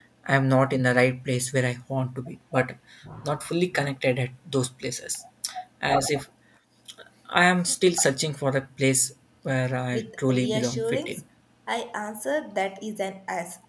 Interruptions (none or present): present